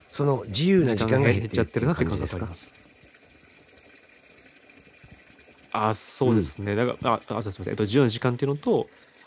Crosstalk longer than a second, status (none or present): present